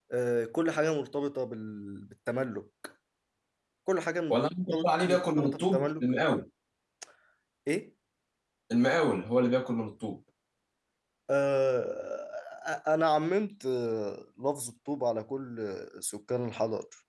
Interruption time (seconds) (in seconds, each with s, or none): 4.3 s